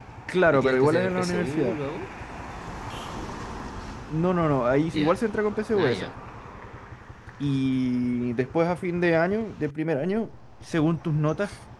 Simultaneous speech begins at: 0.5 s

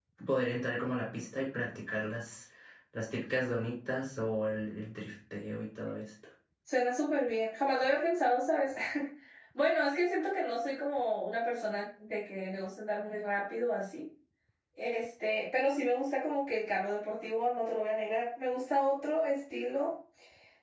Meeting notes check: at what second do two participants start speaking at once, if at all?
none

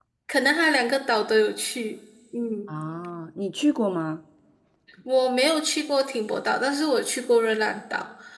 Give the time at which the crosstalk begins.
none

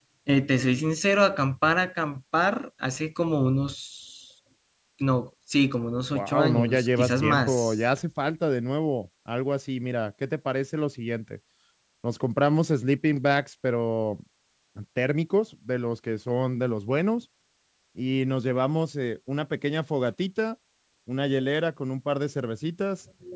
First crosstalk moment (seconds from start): 6.1 s

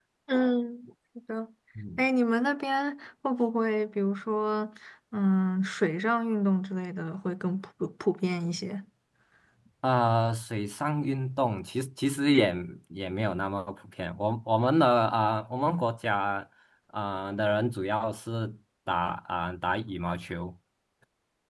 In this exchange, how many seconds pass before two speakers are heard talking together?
none

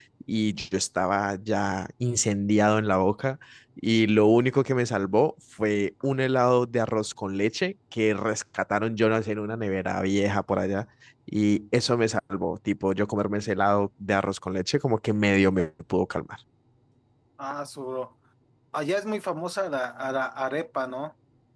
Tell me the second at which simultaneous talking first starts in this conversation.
none

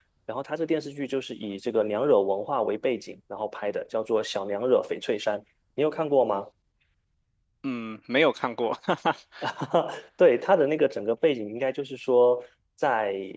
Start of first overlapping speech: none

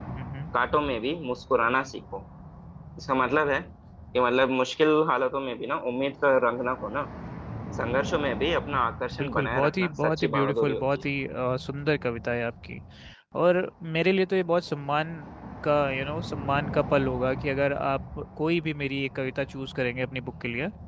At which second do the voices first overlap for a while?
9.1 s

